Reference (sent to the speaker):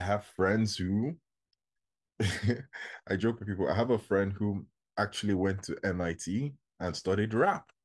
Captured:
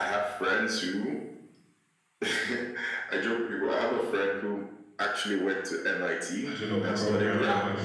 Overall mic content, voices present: both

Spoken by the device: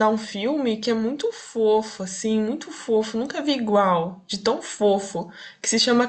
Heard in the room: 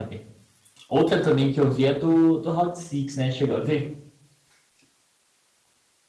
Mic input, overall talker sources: user only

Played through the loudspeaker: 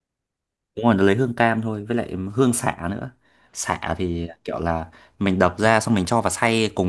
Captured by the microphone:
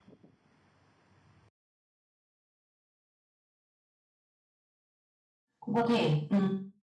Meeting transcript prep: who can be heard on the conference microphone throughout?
user only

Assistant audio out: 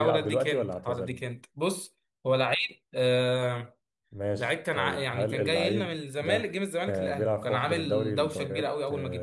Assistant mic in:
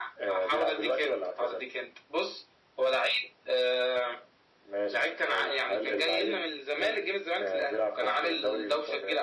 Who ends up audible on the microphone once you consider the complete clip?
echo only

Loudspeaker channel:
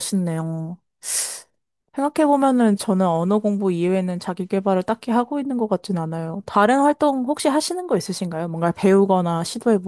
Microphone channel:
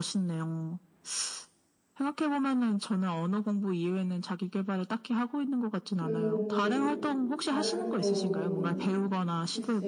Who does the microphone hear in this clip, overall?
both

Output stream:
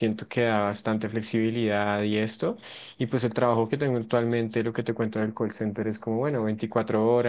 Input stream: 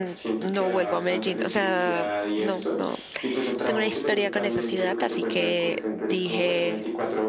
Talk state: both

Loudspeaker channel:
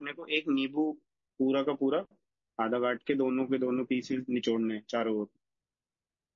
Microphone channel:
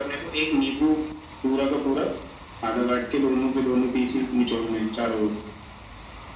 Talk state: echo only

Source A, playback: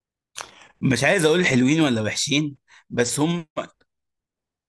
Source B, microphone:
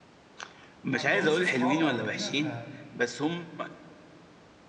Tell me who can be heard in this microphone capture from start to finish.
both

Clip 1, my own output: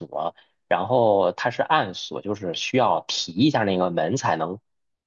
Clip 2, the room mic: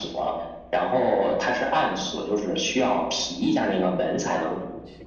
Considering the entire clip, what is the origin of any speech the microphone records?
both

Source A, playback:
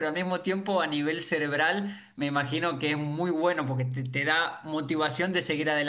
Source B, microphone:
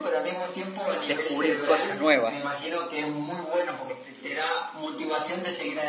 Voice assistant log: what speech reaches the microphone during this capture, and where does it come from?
both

